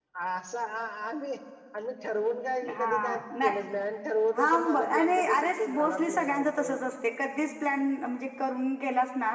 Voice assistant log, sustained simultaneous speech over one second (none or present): present